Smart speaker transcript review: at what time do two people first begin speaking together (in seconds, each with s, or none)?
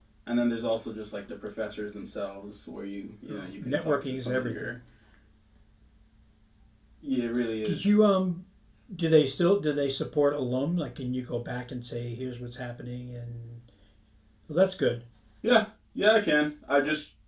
3.3 s